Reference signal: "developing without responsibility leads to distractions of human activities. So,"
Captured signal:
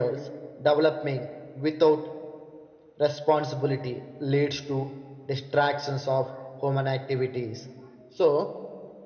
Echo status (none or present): present